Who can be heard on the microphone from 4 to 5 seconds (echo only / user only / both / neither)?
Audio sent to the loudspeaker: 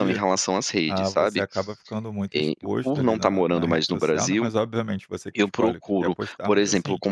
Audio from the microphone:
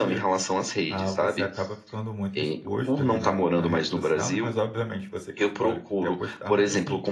echo only